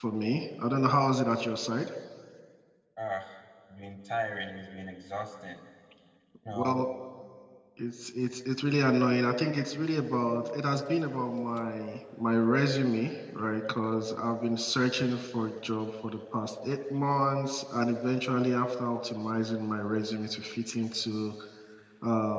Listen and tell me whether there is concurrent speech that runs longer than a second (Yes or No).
No